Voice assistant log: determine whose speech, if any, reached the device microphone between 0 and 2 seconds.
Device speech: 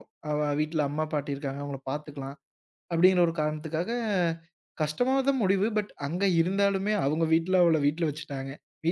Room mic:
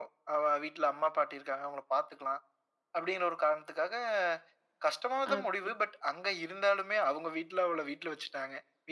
echo only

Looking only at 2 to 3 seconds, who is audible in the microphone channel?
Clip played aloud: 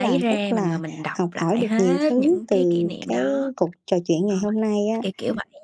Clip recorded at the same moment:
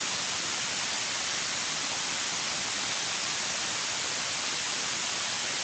neither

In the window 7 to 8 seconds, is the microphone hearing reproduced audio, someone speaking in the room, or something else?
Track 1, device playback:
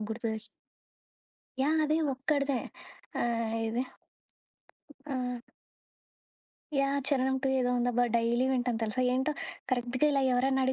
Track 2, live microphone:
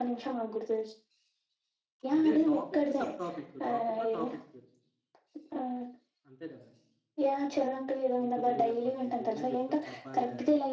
both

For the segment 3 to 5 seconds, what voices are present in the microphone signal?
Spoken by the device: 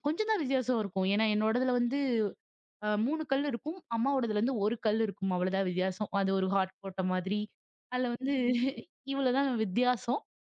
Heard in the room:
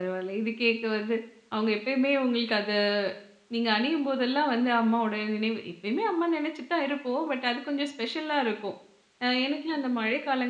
user only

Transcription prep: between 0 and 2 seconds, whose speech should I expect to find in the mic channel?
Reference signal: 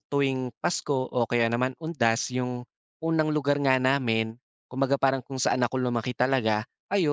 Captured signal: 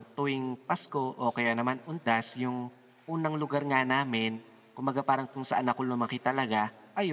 echo only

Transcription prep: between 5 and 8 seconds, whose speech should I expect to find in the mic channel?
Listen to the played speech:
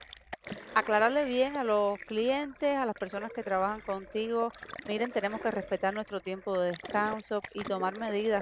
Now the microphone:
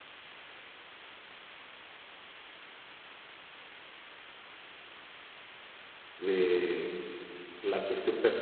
user only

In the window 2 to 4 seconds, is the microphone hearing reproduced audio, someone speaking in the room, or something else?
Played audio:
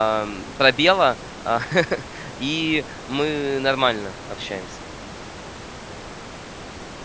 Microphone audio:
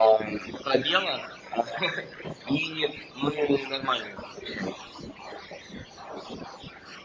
echo only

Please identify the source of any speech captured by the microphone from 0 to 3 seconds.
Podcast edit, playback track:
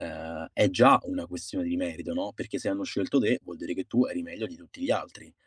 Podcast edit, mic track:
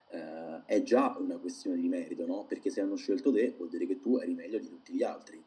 echo only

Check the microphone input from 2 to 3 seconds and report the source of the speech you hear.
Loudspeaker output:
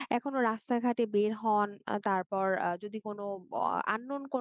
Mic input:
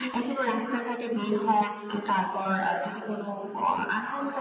echo only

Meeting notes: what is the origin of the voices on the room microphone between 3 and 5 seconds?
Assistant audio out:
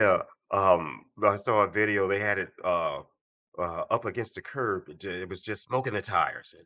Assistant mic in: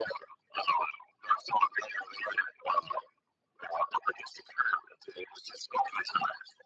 echo only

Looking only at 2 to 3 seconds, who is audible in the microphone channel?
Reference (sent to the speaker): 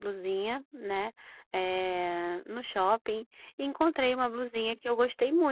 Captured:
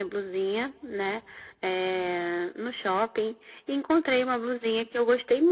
echo only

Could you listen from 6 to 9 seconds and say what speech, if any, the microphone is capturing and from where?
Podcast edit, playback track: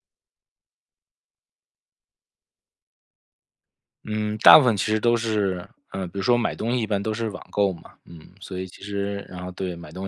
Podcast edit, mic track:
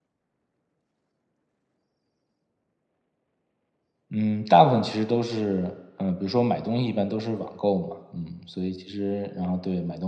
echo only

